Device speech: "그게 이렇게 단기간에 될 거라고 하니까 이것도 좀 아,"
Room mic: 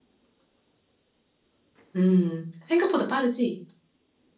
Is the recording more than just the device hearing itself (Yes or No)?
Yes